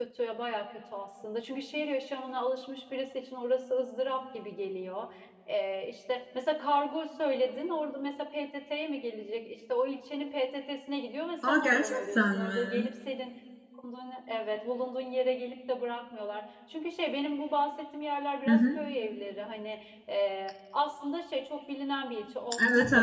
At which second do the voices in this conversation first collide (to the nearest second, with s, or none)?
11 s